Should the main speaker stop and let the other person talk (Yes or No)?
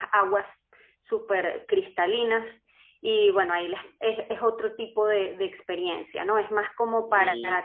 No